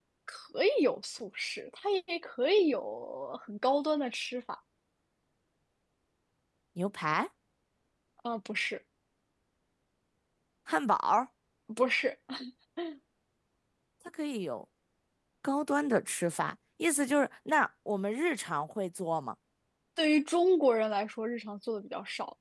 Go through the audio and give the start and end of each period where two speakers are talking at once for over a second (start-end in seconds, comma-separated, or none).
none